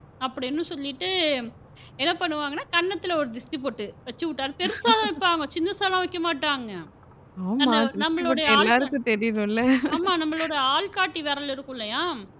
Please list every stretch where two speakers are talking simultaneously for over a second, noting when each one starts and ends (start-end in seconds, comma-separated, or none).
7.7-8.9